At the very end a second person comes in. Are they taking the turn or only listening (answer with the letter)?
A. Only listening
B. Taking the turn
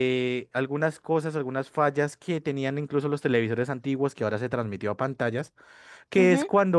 A